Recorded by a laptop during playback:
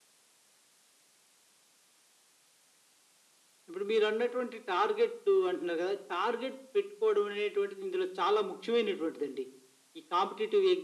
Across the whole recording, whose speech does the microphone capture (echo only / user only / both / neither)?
echo only